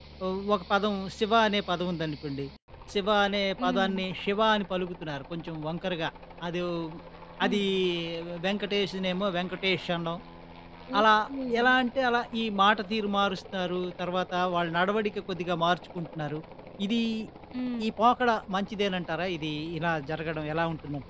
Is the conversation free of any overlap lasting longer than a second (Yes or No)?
Yes